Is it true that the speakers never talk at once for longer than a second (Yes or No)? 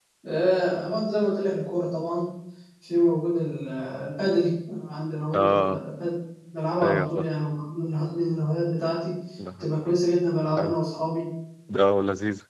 Yes